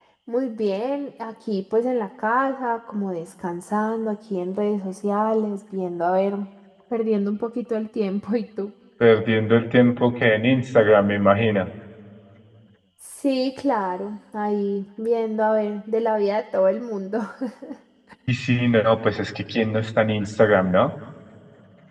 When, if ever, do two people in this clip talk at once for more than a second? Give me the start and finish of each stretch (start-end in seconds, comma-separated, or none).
none